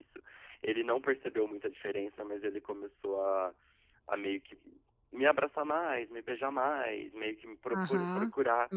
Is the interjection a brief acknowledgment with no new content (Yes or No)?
No